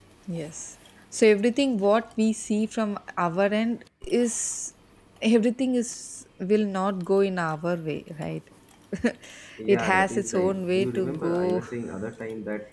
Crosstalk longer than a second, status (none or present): present